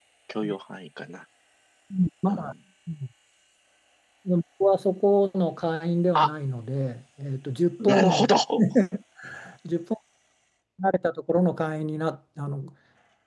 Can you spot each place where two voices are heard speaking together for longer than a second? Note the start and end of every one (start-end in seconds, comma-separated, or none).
none